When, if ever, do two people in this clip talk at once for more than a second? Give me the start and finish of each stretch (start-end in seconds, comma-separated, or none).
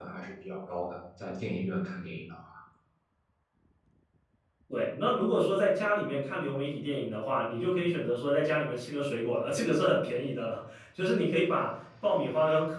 none